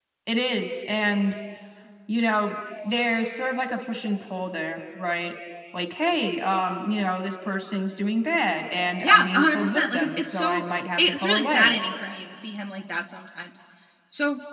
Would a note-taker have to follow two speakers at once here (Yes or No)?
Yes